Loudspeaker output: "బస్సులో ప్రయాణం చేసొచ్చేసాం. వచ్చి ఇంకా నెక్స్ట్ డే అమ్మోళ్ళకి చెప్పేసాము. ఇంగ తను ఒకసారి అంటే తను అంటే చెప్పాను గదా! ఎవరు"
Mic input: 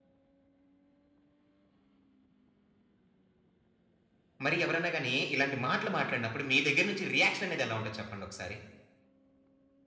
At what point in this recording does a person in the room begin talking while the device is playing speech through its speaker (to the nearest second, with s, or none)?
4 s